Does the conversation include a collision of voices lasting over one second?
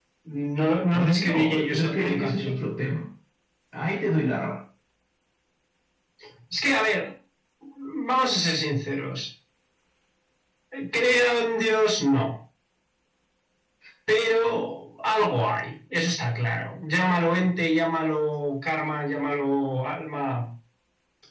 Yes, from 0.9 s

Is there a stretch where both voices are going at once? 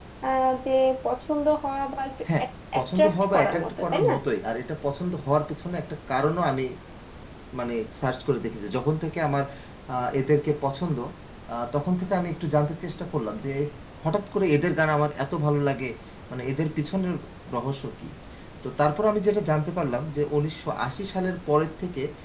Yes, from 2.8 s

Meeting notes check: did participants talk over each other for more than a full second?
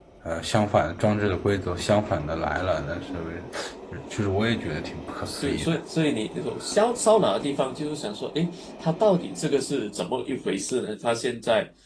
No

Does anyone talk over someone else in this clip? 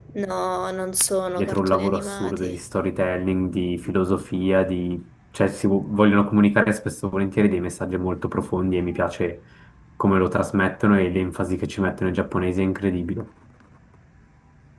Yes, from 1.4 s

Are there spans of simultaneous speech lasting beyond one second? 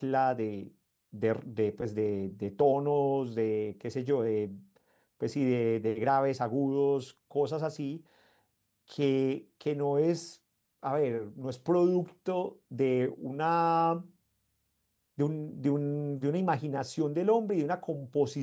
No

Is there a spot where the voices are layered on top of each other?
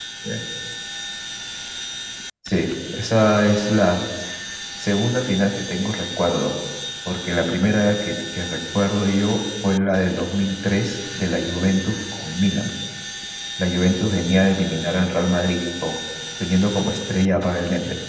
No

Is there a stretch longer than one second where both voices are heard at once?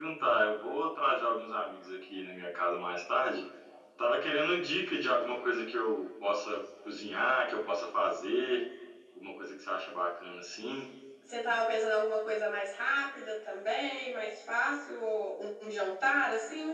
No

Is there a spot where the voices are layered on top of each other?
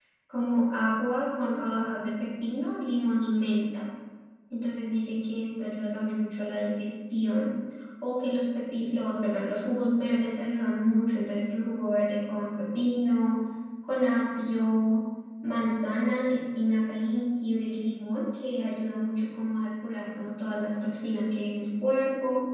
No

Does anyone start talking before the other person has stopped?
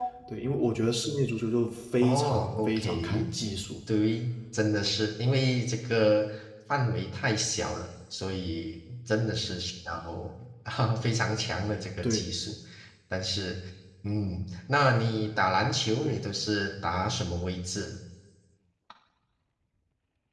Yes, from 2.0 s

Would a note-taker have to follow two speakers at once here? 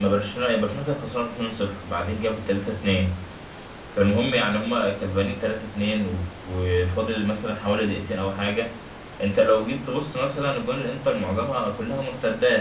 No

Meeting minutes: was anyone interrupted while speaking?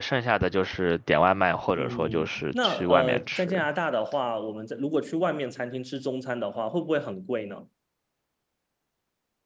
Yes, from 1.8 s

